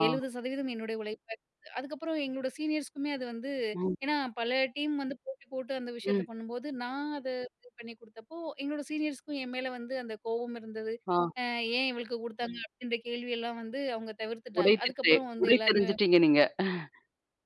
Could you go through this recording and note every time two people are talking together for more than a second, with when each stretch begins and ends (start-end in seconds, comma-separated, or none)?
14.6-15.9